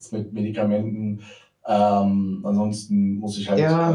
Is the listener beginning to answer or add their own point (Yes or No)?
Yes